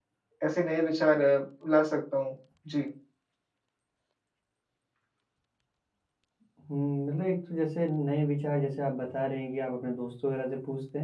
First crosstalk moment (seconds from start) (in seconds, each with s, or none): none